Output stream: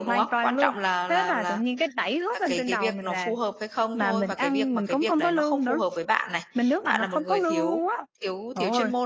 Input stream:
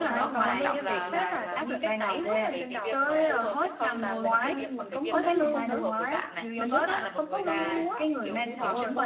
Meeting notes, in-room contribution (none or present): present